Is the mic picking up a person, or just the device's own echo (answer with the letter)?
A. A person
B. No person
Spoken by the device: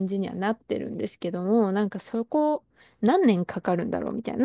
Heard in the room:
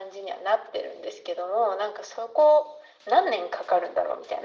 B